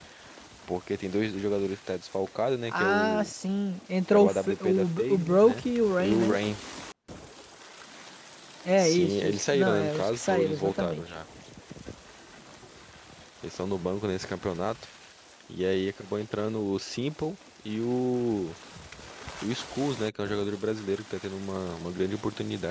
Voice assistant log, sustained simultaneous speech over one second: present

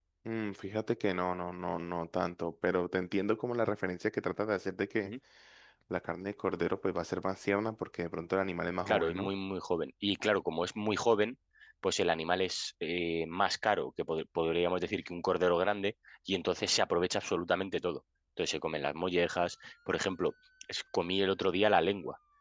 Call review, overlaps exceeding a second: none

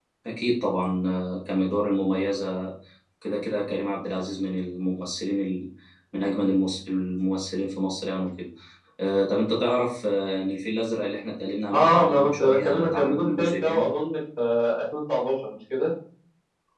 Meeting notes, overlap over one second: present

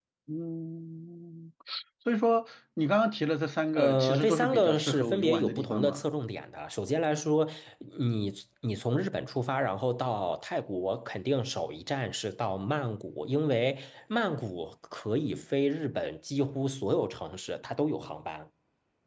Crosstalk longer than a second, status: present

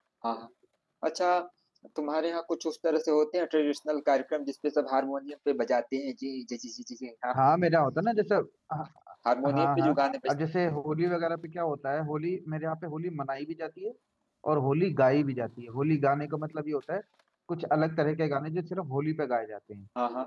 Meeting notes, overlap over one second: none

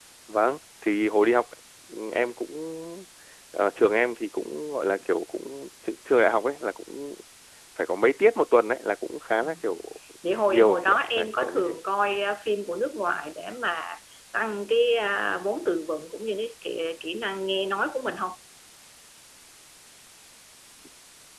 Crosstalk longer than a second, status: present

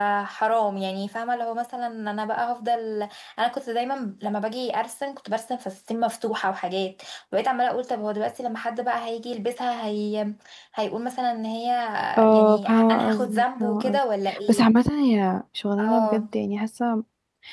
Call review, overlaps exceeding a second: present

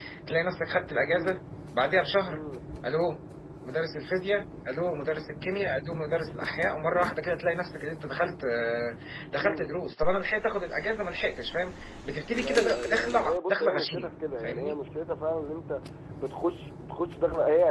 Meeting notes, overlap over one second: present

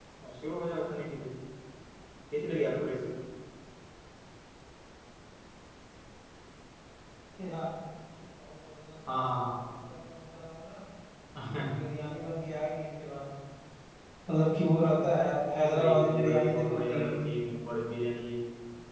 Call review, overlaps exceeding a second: present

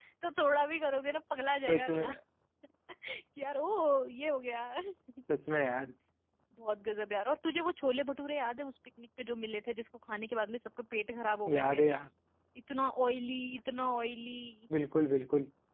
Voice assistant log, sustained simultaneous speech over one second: none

